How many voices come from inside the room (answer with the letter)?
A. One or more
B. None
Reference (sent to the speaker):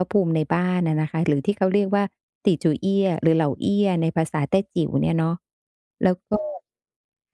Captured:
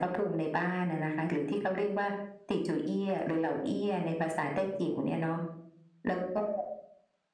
B